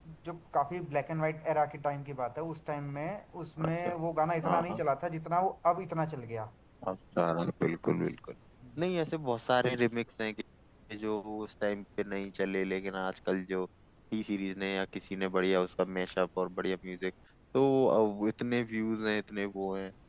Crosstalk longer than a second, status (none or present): none